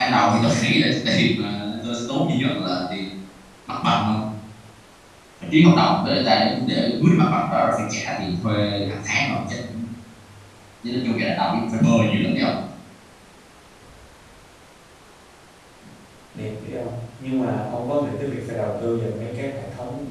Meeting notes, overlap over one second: none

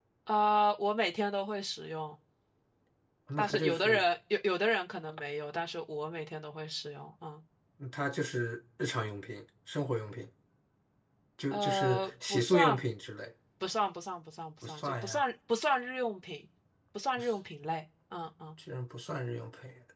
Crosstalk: present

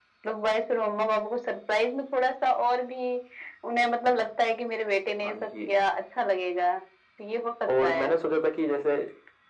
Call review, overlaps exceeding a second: none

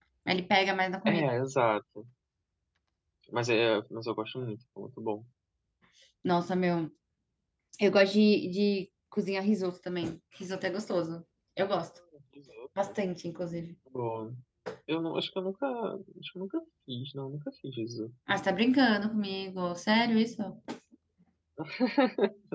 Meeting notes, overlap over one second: none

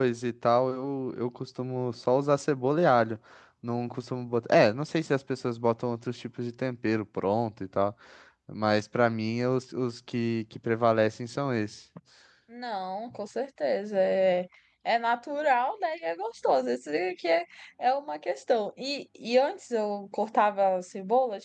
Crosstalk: none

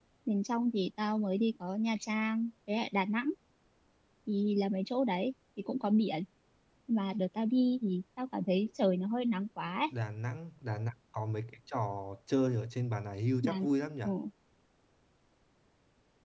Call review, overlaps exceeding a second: none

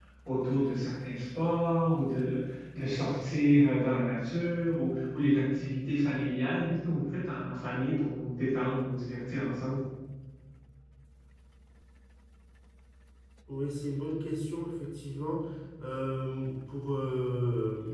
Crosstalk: none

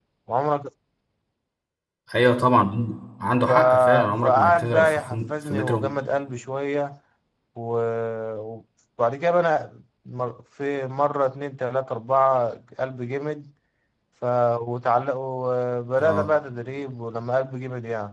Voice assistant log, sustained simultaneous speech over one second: present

